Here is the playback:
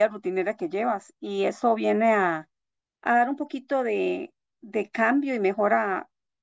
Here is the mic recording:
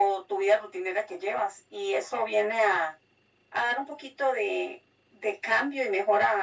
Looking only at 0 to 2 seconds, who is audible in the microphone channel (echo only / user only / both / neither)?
echo only